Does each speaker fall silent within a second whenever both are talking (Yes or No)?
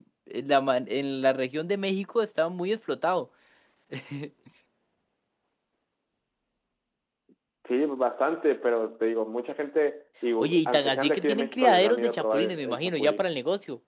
No